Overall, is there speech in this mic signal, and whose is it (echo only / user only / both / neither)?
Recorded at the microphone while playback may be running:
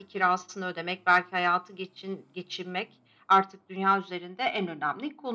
echo only